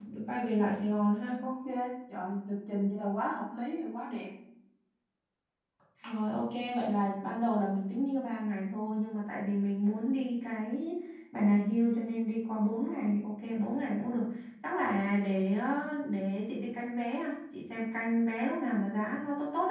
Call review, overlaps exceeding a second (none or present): none